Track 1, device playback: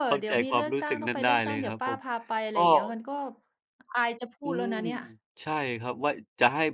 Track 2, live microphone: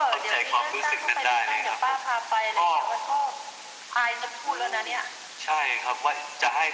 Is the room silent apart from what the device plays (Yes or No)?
Yes